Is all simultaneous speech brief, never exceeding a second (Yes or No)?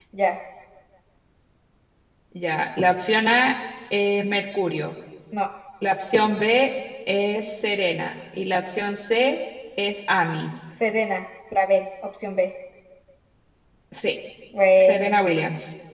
Yes